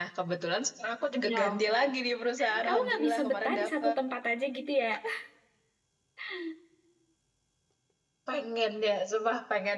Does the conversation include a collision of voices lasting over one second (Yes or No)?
Yes